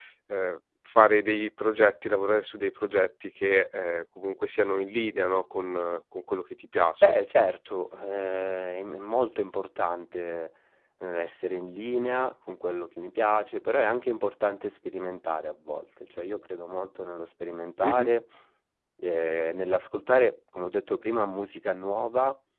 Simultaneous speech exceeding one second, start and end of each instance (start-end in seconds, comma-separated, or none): none